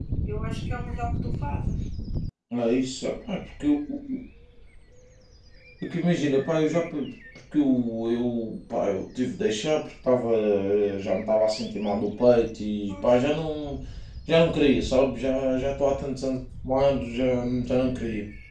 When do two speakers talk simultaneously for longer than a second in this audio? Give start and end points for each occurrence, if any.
none

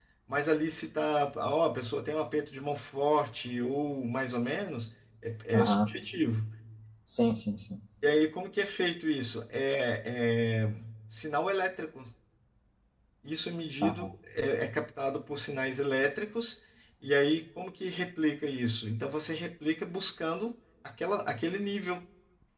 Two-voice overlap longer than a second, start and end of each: none

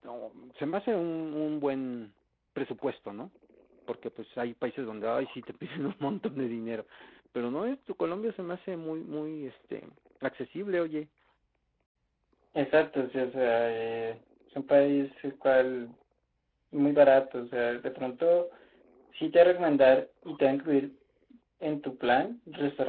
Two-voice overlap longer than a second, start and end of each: none

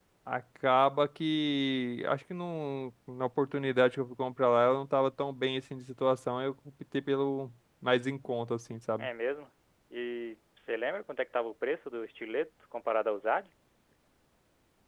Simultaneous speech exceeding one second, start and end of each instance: none

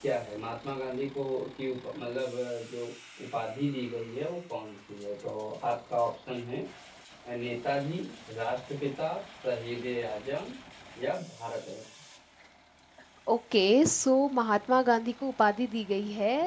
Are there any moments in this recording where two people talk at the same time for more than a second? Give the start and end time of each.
none

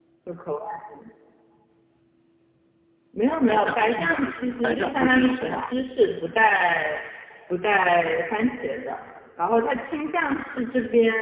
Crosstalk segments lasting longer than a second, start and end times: 3.4-5.6

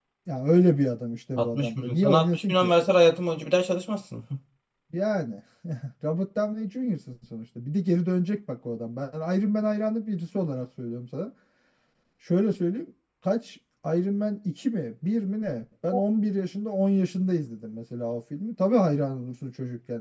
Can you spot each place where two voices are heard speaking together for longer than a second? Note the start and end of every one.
1.4-2.7

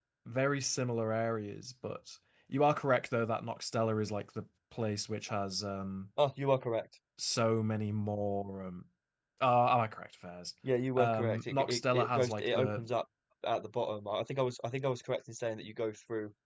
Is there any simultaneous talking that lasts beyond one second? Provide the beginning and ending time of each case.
11.0-12.8

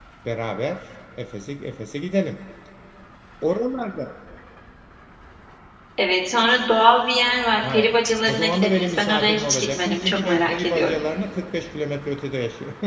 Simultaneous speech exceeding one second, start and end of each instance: 8.3-11.0

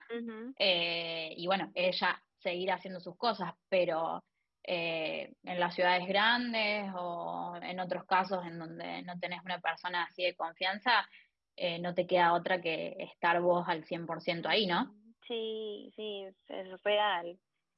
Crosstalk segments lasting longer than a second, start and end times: none

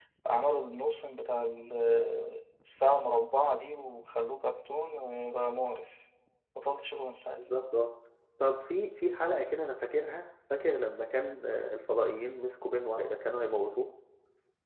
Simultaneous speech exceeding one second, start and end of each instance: none

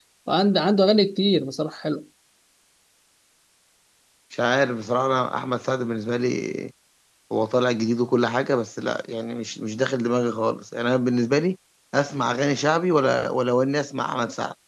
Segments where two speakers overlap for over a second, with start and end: none

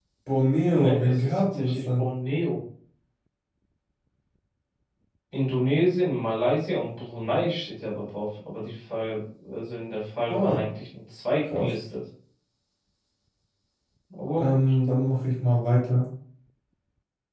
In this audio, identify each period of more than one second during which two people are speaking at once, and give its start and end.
0.7-2.0

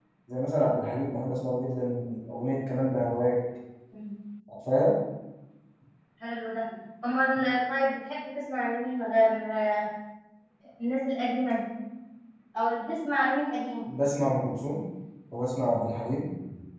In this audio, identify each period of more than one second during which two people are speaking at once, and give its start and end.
none

